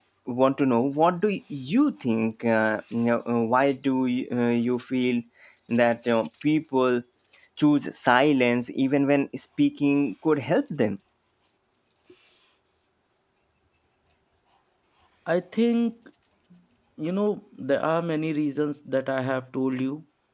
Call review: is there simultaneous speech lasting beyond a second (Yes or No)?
No